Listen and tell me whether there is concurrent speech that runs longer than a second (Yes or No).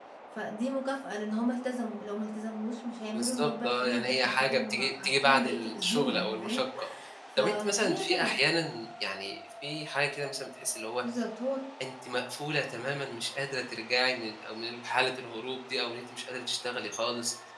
Yes